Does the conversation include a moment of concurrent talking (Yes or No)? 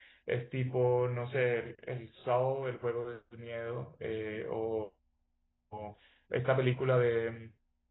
No